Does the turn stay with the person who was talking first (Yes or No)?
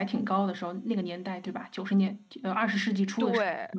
No